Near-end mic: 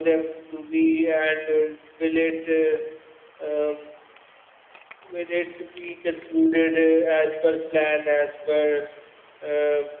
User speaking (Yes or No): No